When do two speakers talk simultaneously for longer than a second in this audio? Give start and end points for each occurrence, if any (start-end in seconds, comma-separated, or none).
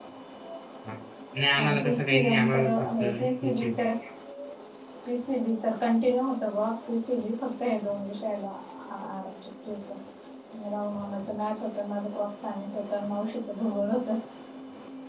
1.6-3.7